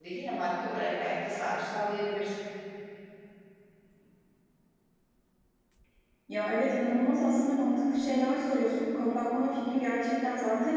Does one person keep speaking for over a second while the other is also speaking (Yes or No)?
No